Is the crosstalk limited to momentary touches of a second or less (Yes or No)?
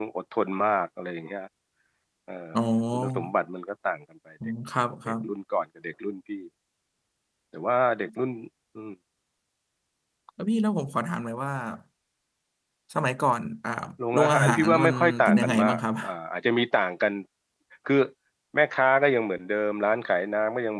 No